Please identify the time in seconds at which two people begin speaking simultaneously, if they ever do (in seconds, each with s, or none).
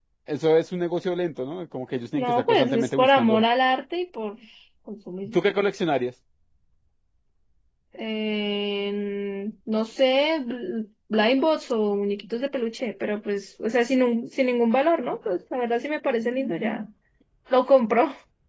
2.1 s